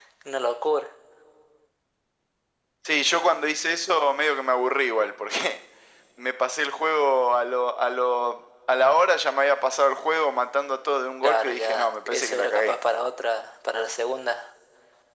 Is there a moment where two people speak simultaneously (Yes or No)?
Yes